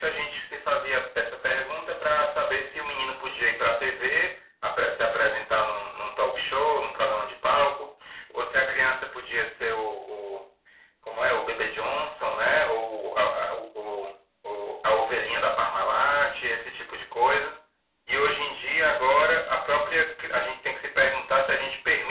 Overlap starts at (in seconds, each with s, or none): none